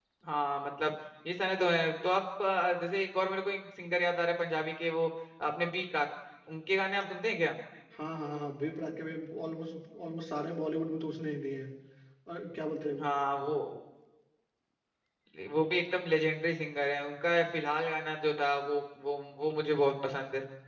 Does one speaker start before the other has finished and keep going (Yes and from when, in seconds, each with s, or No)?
No